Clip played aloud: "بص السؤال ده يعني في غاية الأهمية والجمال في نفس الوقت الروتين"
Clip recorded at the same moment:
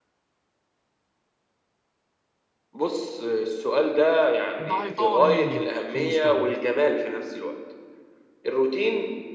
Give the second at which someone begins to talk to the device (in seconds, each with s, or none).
4.6 s